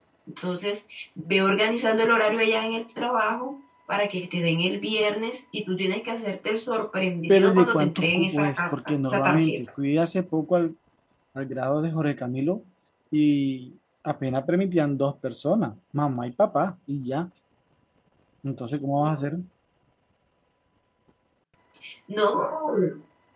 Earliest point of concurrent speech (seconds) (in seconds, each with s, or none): 7.3 s